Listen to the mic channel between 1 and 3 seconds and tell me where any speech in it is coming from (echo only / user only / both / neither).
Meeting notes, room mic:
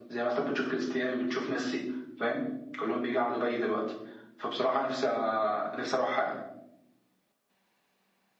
echo only